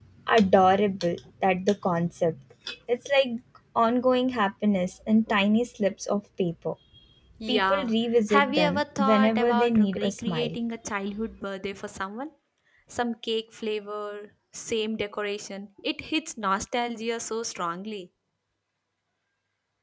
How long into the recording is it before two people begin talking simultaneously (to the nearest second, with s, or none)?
7 s